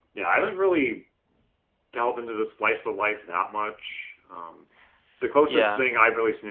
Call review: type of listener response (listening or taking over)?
listening